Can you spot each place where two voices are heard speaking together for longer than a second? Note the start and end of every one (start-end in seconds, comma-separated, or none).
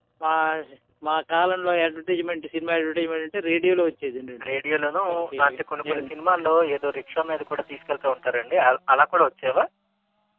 none